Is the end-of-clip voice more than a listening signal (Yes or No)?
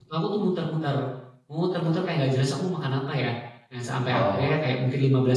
No